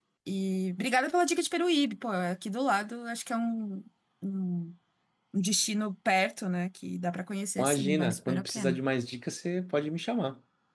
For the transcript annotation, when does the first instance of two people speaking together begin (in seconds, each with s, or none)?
7.6 s